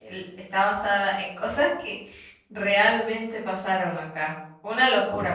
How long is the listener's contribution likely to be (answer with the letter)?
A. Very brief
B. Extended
B